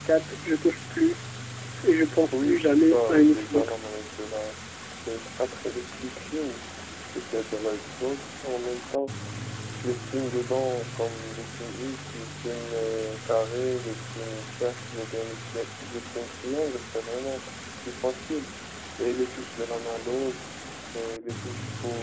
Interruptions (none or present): present